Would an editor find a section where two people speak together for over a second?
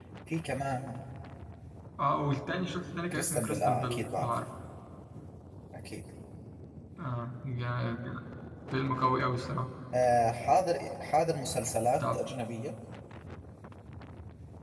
Yes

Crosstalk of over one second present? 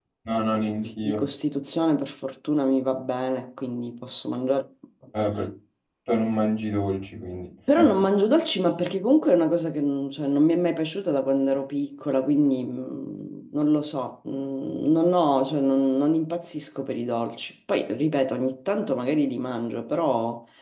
No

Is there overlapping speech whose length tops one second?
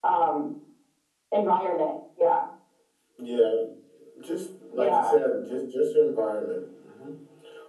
No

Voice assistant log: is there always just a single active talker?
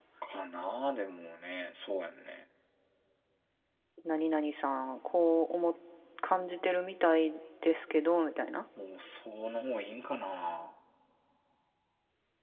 Yes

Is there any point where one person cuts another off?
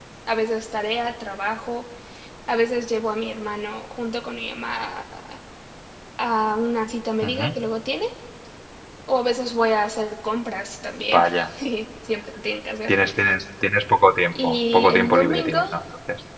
Yes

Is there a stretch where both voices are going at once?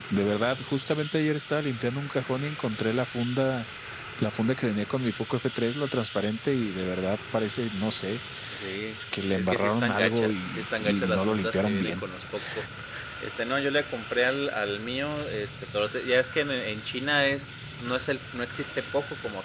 Yes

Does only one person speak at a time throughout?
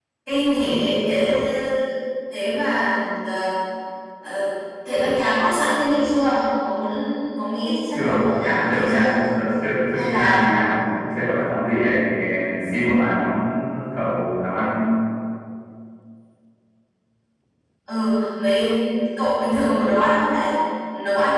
No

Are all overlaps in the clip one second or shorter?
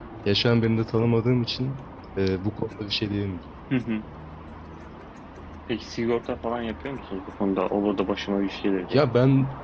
Yes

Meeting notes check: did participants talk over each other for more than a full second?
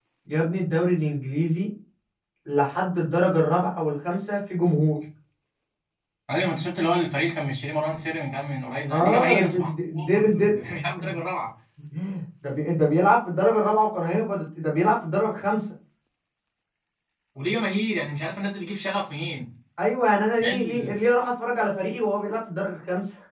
Yes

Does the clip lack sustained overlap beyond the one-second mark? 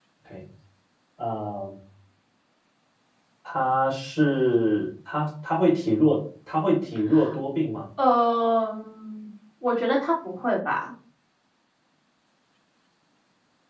Yes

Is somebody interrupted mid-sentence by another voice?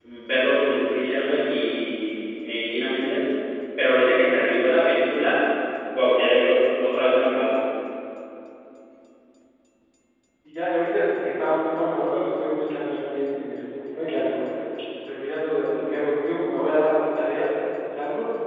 No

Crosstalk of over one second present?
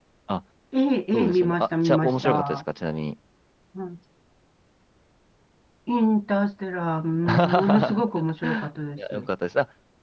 Yes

